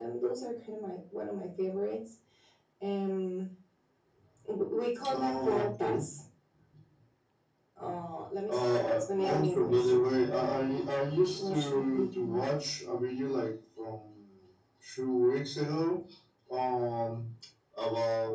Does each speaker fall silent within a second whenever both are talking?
No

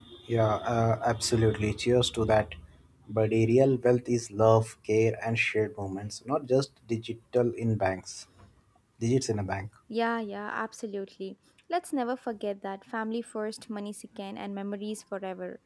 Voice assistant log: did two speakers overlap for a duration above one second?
No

